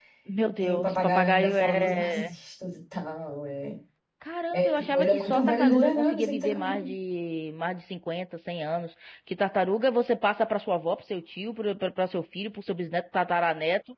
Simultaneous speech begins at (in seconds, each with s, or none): 0.6 s